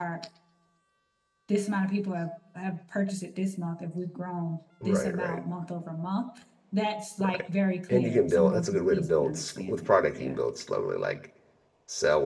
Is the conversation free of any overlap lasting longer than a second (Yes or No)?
No